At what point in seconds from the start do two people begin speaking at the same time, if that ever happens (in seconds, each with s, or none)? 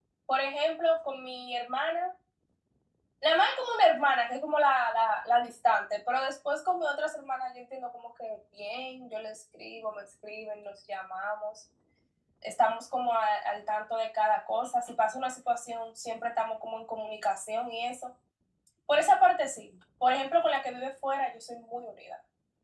none